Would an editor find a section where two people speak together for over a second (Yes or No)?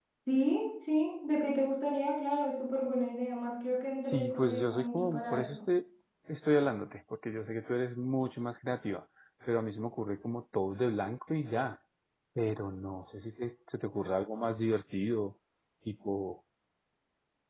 Yes